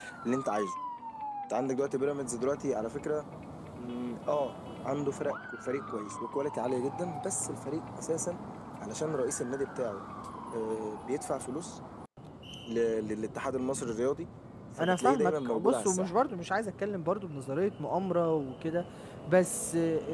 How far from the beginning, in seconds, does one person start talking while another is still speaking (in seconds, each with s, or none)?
14.8 s